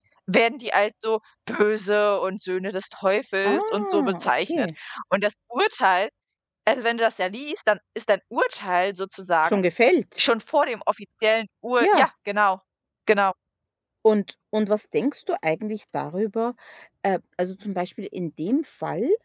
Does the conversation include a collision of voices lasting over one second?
Yes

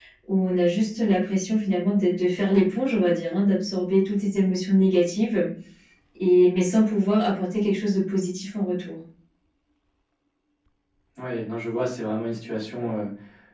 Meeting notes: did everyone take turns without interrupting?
Yes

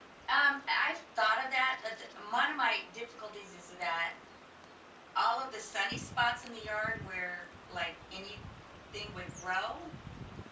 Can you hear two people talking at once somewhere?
No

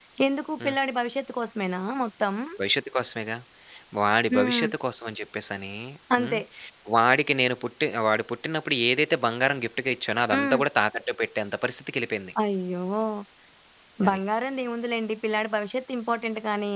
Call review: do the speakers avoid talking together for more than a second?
Yes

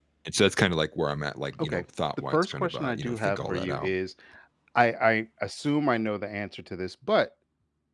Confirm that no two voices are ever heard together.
No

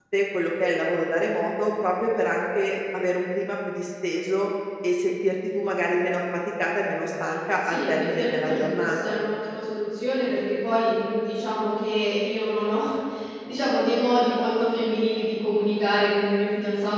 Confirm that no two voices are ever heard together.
No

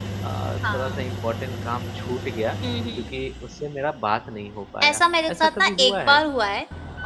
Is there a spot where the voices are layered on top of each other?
Yes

